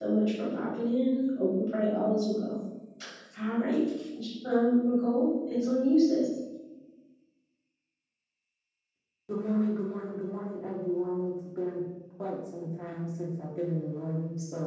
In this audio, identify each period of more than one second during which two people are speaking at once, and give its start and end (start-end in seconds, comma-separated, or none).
none